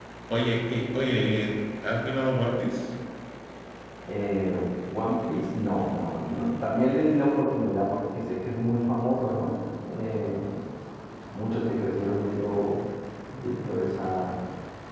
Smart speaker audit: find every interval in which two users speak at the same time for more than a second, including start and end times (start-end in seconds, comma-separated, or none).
none